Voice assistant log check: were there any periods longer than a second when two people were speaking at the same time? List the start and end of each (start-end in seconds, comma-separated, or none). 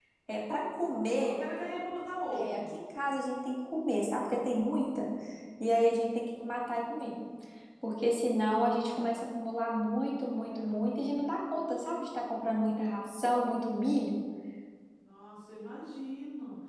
none